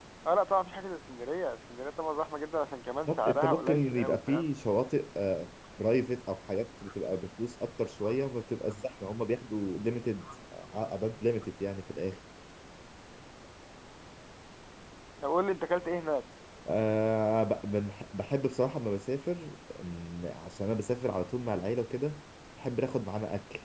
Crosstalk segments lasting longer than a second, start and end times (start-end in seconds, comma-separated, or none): 3.1-4.5